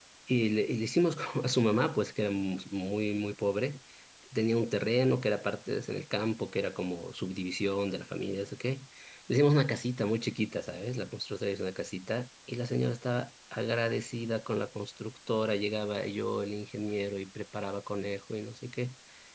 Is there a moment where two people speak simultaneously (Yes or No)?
No